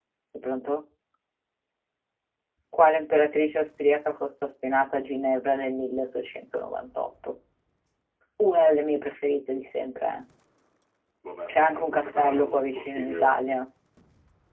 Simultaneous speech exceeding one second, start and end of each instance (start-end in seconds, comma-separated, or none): 11.5-13.3